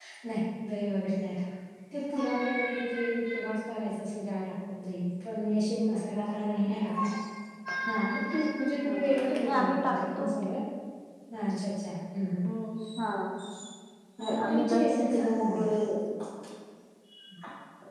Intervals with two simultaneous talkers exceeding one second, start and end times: 9.0-10.3, 14.5-15.7

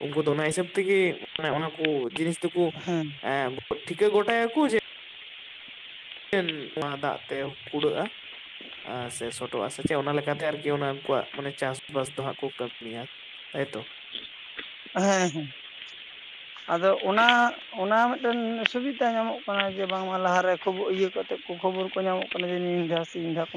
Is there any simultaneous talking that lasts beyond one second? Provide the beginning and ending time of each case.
none

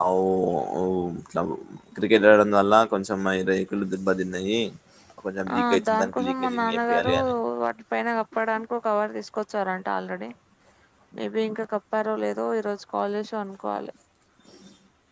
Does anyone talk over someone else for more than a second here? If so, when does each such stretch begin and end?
5.6-7.1

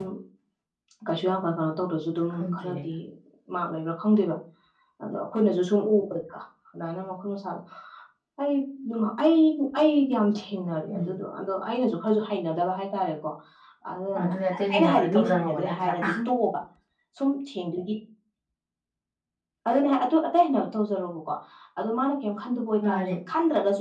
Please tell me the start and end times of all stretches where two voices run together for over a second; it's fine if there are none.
14.7-16.0

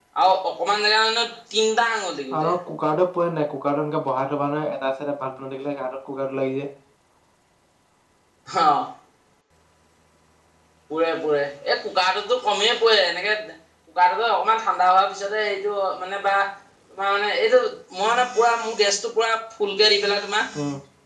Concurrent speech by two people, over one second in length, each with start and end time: none

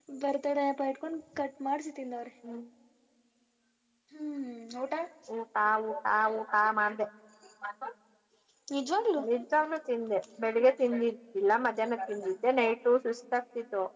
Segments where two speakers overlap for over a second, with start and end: none

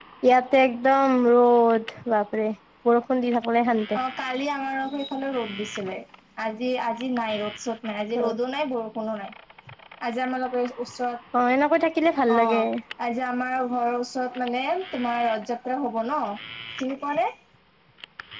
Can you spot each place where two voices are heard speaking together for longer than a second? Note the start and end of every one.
none

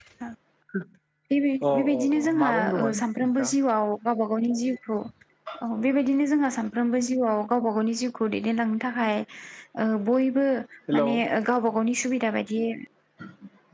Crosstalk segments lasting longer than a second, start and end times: 1.7-3.5

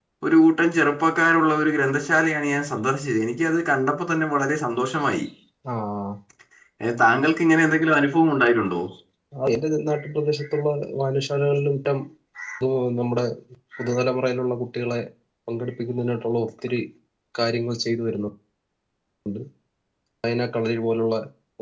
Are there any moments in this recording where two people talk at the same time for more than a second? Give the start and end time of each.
none

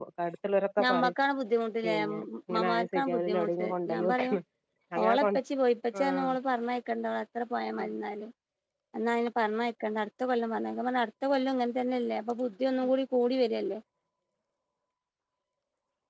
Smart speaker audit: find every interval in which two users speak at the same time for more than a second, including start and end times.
1.8-4.1

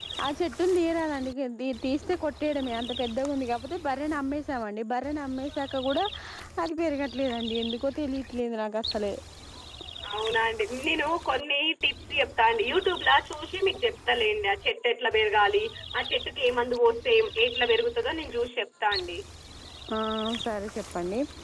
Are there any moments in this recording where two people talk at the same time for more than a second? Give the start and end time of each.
none

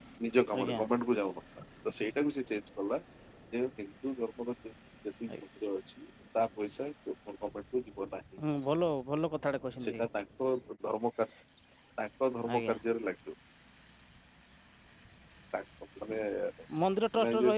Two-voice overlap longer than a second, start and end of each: none

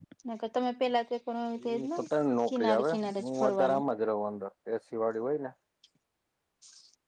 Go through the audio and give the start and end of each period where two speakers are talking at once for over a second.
2.5-3.8

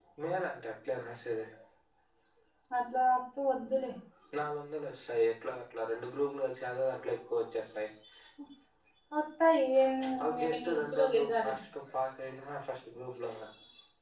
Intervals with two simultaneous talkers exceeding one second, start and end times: 10.2-11.5

